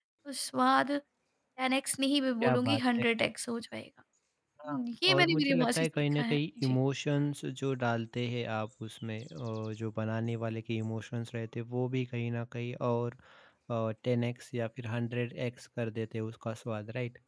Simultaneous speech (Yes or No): Yes